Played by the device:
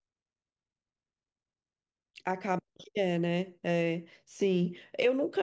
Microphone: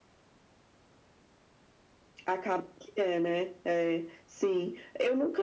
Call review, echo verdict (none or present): present